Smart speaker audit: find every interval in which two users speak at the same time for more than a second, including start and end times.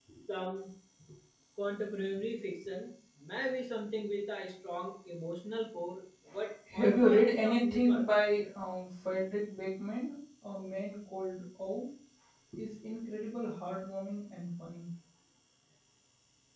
6.7-8.1

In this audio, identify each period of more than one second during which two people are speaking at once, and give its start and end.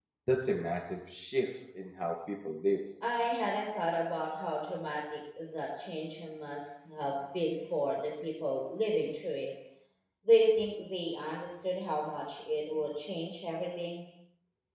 none

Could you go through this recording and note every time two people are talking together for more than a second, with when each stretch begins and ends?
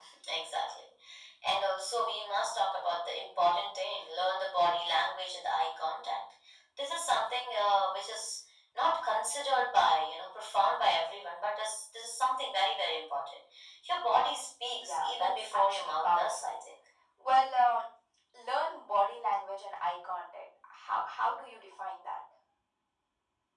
14.8-16.5

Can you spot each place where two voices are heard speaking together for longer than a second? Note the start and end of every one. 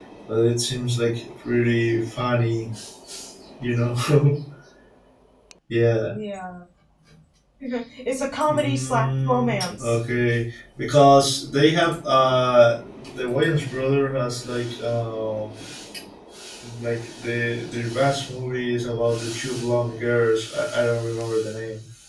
8.5-10.0

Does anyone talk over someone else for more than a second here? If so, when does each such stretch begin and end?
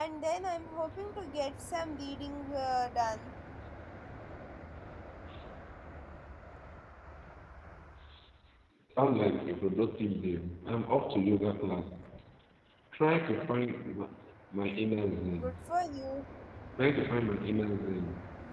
none

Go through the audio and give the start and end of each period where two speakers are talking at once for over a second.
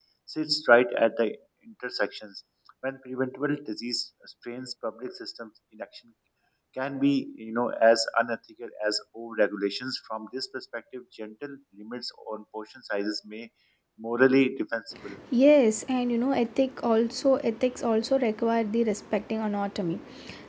none

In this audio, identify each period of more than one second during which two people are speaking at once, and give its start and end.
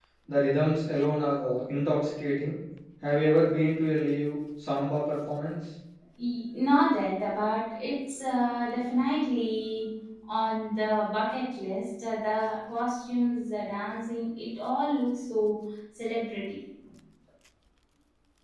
none

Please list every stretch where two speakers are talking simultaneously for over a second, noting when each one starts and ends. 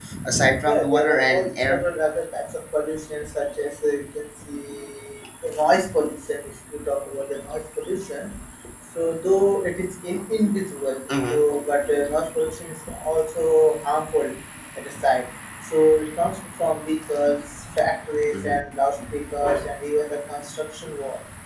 0.6-1.9

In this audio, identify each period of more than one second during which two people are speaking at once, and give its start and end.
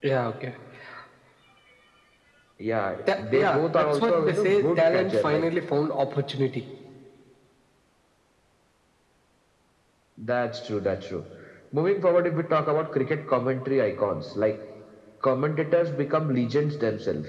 3.2-5.5

